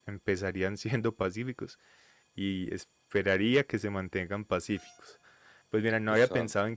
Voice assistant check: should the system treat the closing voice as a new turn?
No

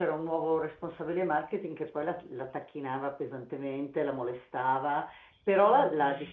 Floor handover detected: No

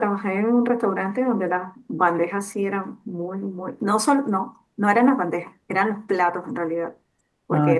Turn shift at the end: No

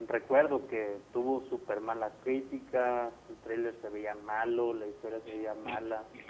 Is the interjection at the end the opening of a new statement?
Yes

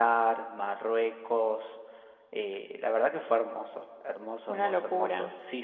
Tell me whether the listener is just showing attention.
Yes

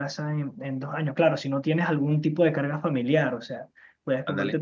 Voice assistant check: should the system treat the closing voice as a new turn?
No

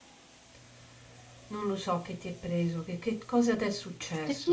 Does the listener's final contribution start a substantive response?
Yes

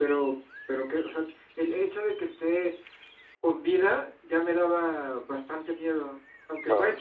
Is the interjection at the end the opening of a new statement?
No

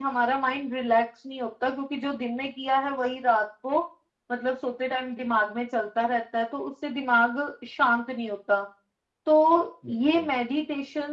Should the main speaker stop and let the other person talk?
No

